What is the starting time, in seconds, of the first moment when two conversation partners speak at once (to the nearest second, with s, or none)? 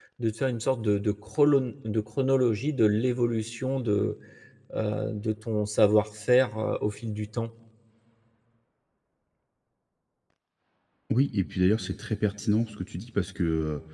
none